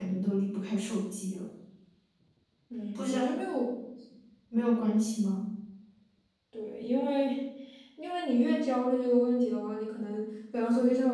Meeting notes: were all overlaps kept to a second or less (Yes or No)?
Yes